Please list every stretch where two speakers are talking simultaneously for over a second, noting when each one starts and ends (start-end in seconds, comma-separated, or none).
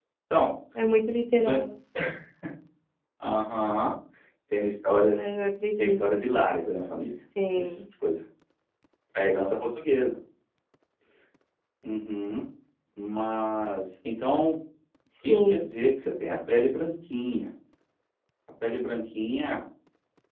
none